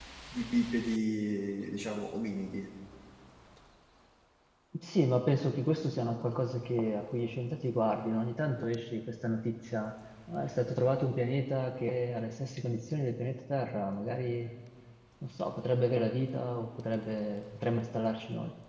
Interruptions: none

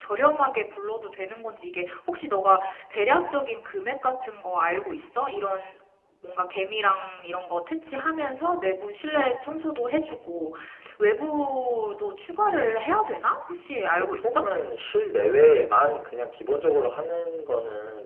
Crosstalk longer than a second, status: none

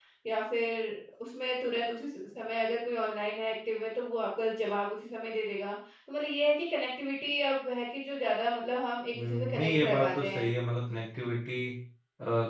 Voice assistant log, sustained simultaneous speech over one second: present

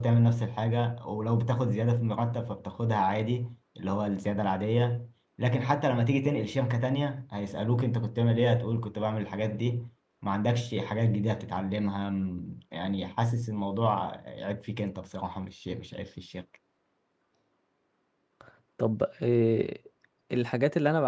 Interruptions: none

